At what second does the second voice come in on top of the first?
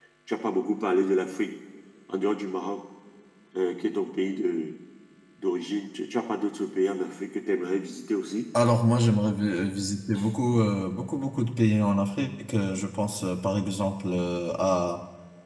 none

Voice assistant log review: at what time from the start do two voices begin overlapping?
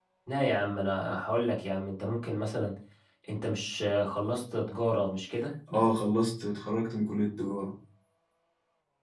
none

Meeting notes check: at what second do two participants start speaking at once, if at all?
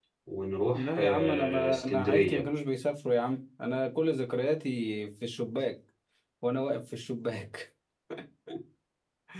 0.7 s

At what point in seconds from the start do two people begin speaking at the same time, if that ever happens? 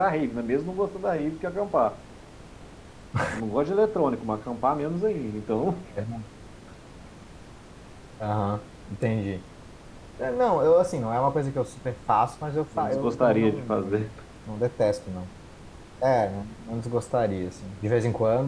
12.7 s

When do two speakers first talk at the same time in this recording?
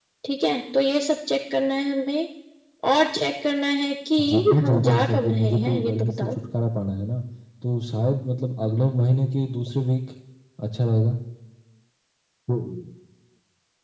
4.2 s

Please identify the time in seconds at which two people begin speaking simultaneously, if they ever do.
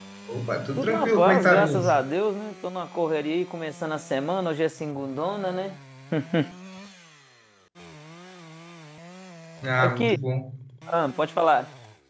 0.8 s

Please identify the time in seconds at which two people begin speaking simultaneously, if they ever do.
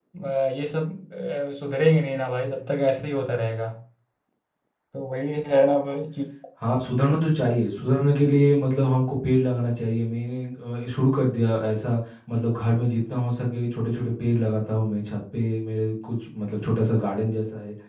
none

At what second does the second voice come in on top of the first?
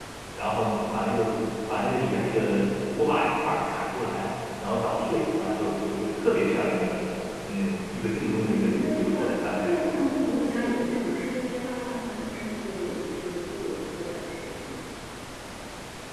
8.5 s

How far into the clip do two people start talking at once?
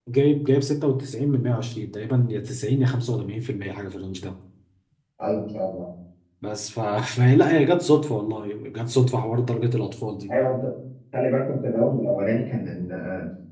none

